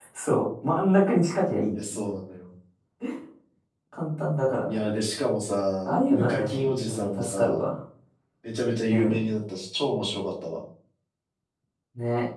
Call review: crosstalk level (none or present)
present